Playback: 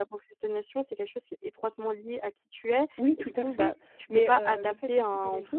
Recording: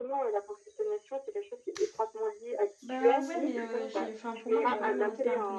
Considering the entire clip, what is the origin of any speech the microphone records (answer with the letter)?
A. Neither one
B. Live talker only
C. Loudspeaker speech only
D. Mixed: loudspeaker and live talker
D